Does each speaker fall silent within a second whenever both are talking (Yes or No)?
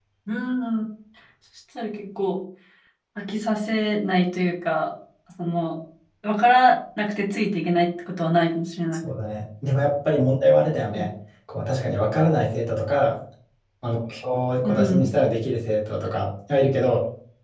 Yes